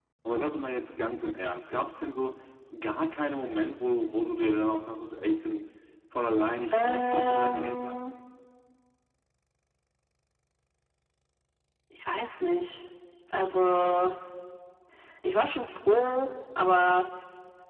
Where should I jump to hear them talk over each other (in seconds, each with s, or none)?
6.7 s